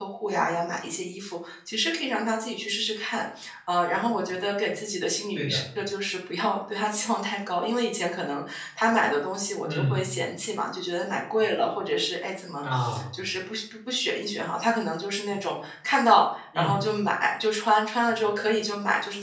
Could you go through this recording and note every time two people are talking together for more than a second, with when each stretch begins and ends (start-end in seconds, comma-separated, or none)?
none